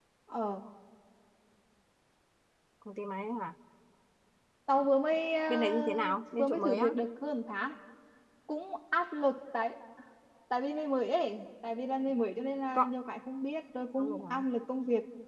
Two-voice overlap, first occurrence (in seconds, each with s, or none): 5.5 s